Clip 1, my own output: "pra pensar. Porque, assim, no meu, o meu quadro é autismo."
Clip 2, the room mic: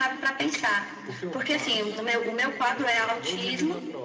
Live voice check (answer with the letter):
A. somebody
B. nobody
A